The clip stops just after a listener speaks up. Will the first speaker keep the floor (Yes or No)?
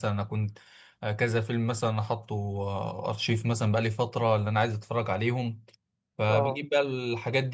Yes